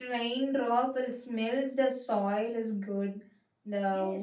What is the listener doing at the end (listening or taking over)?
taking over